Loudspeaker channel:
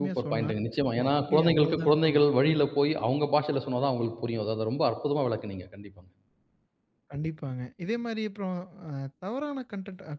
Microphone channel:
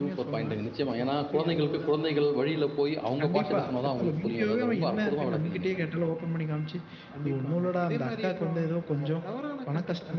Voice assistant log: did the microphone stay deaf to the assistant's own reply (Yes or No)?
No